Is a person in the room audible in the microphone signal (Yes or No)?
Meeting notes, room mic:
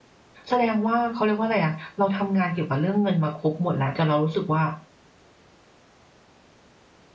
Yes